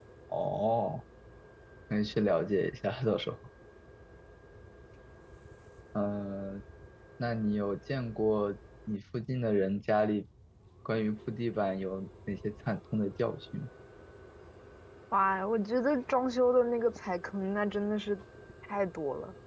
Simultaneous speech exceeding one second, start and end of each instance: none

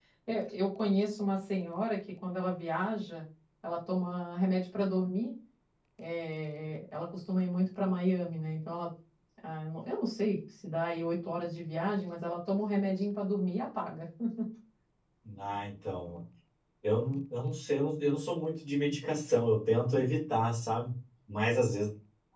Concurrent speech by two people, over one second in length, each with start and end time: none

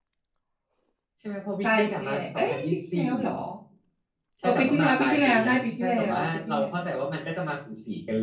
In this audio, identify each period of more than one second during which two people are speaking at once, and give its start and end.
1.6-3.1, 4.4-6.9

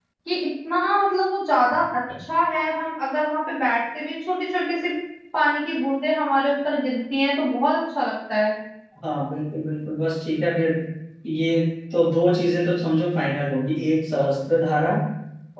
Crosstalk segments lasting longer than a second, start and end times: none

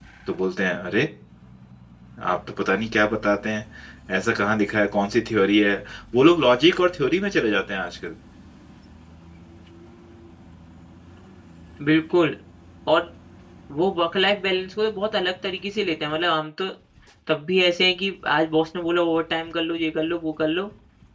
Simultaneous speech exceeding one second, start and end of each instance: none

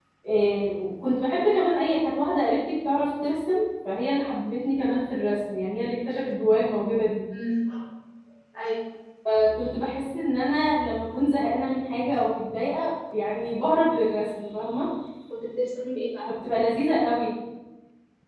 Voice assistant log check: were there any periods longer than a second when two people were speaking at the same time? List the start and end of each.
none

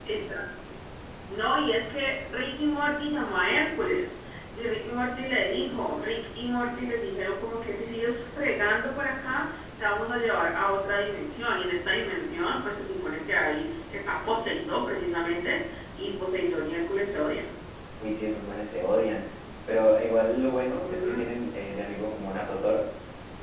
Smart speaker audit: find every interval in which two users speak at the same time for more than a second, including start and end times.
none

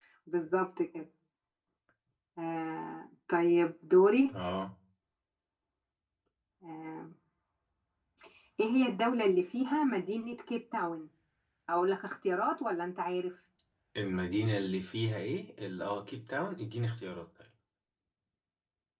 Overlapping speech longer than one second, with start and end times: none

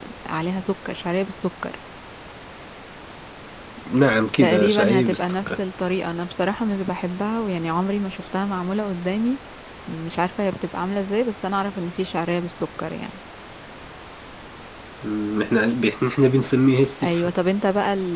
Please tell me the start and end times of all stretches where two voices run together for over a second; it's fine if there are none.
4.4-5.6

